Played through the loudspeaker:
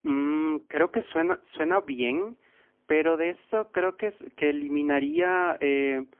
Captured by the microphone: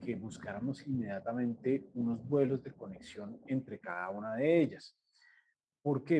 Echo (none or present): none